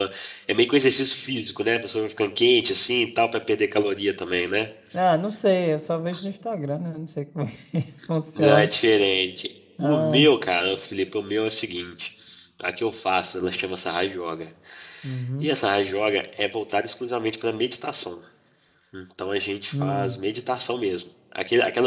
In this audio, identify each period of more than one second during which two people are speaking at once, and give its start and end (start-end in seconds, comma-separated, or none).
none